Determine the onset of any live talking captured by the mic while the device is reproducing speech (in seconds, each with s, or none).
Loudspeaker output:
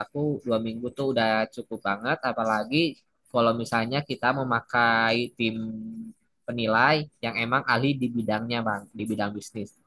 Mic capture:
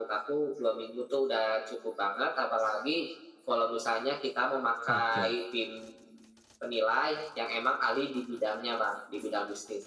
4.9 s